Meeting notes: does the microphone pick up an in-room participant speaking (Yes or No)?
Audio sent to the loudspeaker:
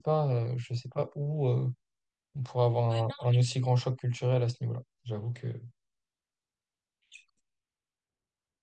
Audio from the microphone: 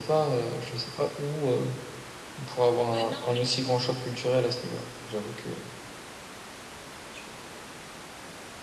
No